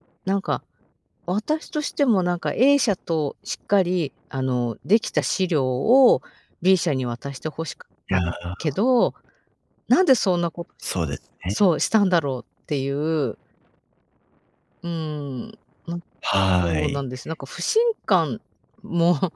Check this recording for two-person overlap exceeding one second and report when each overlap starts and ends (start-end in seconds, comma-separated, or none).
none